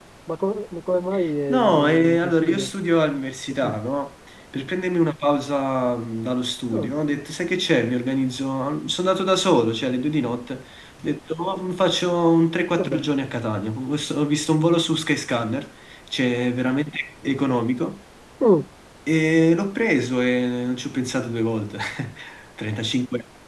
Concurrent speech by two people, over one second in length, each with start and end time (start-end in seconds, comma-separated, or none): 1.5-2.7